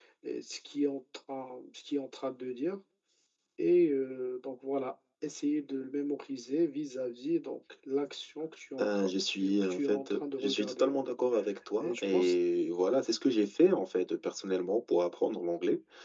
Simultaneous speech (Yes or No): Yes